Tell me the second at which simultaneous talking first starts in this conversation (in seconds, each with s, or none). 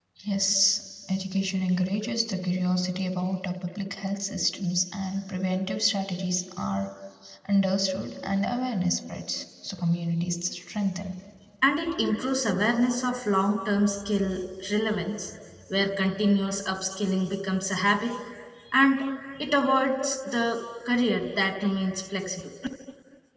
none